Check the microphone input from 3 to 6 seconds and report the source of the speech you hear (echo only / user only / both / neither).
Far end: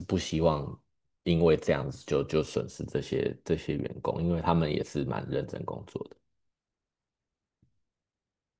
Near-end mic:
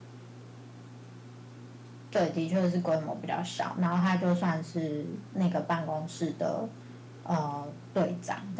user only